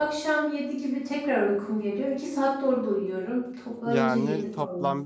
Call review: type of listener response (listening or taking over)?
taking over